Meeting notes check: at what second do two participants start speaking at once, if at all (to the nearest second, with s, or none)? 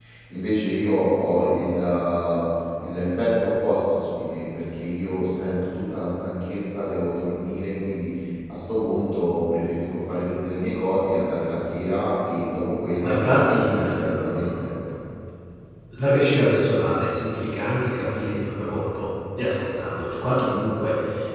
13 s